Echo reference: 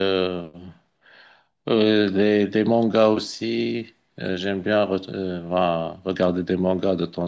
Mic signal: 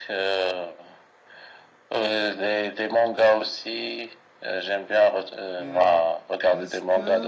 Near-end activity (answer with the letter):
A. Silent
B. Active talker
B